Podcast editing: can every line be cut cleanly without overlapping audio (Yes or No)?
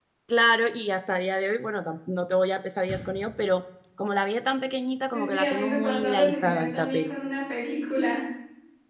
No